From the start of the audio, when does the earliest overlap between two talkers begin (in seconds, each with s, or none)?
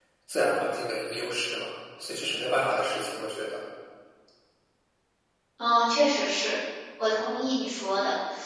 none